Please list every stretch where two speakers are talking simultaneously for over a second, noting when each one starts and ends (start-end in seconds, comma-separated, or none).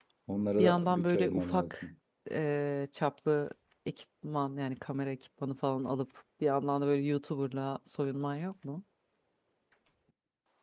0.6-1.8